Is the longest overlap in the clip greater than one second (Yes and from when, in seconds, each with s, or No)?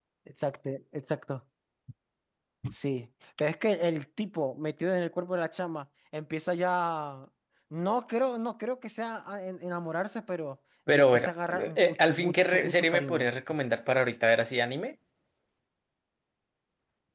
Yes, from 10.9 s